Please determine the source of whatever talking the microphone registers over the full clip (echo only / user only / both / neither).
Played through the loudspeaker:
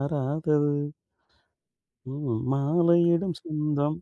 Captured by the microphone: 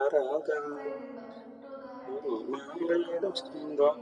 both